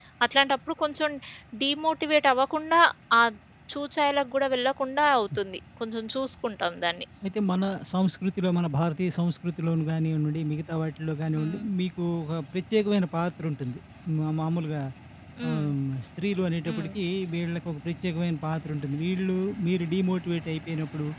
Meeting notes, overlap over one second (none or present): none